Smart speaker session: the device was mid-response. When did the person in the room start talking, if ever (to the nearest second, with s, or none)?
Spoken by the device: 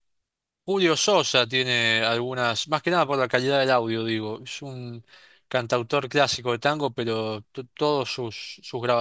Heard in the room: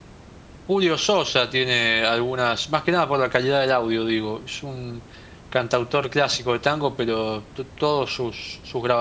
none